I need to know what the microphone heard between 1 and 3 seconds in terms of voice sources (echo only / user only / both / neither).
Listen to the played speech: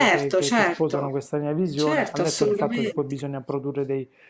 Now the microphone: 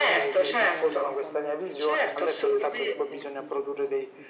both